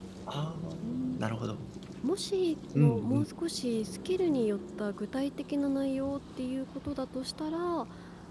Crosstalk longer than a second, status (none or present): none